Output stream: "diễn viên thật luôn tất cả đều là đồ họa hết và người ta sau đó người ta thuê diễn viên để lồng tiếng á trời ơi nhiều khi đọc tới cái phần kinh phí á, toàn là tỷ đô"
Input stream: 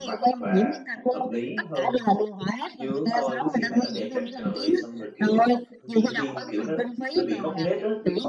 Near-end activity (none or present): present